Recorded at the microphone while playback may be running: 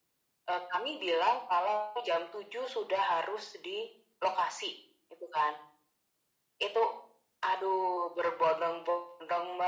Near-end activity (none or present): none